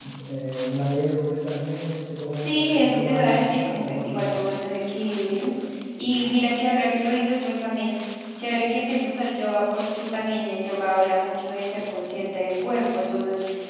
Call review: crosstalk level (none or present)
present